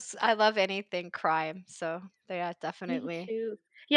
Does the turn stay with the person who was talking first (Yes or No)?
No